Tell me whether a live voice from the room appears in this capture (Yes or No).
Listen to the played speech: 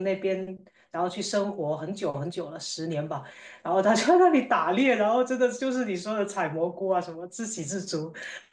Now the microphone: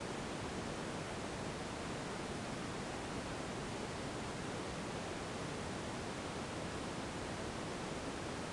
No